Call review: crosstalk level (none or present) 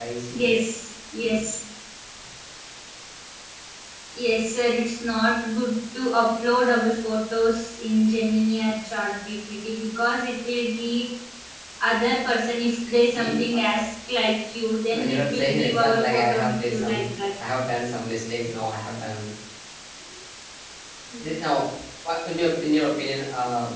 present